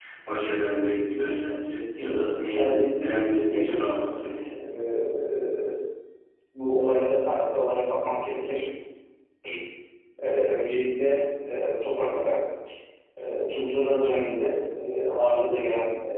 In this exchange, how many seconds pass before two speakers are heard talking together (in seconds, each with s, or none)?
2.5 s